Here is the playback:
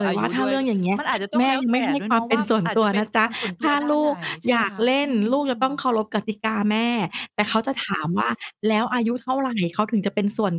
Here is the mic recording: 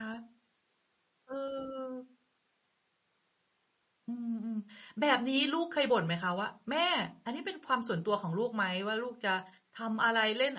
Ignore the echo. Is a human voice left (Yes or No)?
Yes